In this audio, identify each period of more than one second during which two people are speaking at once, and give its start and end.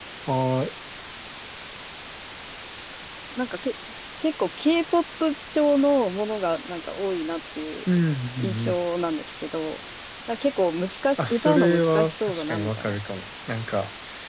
11.2-13.0

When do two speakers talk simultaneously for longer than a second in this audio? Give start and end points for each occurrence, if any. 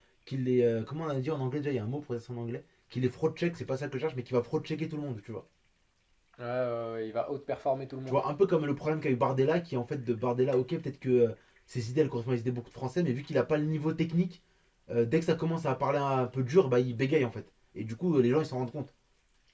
none

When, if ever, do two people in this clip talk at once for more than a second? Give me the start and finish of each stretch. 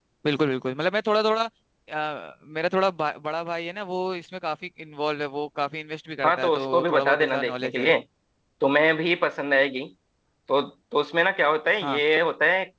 6.2-7.9

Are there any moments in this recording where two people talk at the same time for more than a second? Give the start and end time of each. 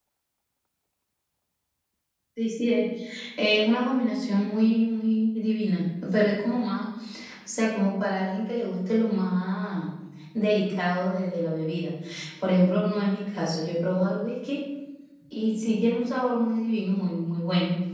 none

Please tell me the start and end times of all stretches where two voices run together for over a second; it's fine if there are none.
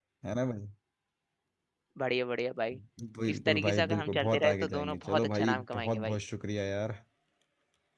3.3-6.2

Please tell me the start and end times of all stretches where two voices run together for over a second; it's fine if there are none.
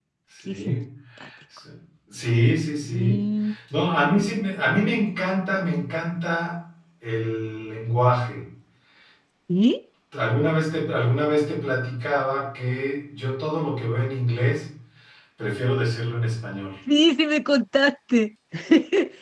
none

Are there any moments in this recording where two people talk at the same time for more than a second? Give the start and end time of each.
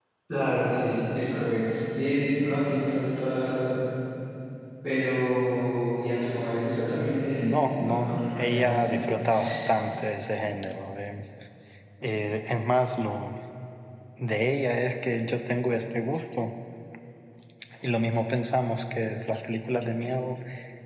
7.5-8.9

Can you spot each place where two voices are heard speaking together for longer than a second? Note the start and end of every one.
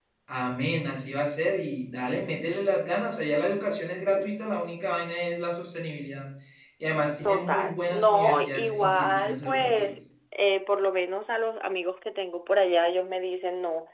7.2-9.9

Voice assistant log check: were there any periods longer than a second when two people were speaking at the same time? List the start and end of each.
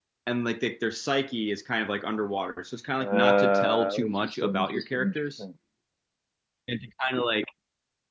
3.0-5.4

